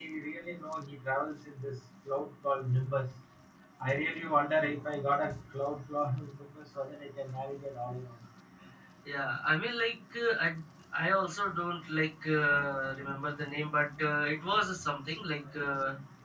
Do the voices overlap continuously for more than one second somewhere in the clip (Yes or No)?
No